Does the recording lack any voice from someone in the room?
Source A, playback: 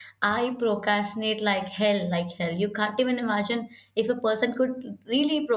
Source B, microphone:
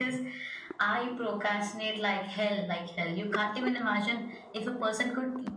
Yes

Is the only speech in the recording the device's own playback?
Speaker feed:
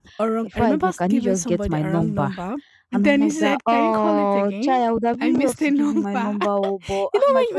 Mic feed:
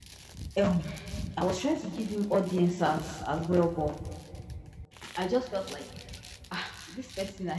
No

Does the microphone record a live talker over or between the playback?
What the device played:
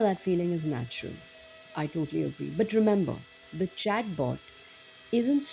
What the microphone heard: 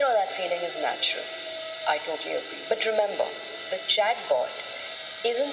No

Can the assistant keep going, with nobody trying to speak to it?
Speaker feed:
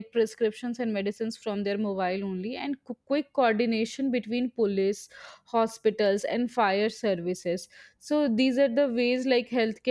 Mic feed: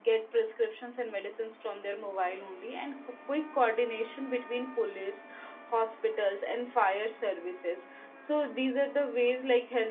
Yes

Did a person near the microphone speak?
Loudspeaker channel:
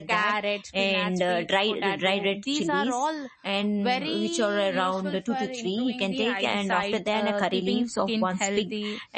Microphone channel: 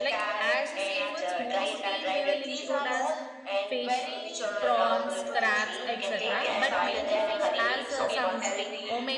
Yes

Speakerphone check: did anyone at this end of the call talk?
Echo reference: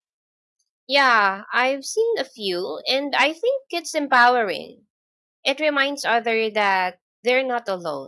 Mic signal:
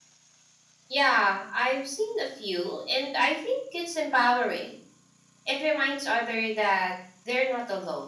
No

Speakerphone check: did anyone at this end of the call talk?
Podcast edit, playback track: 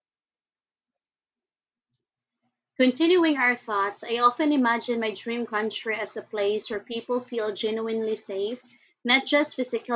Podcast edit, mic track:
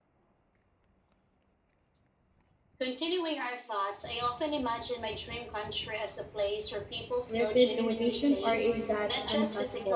Yes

